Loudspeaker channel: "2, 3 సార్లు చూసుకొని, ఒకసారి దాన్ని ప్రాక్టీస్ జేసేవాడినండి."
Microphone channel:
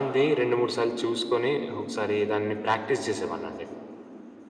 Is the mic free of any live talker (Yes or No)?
Yes